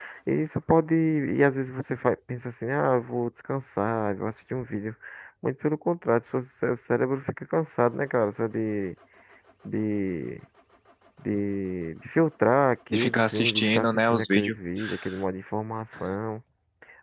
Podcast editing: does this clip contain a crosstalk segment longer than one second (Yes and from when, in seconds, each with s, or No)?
Yes, from 12.9 s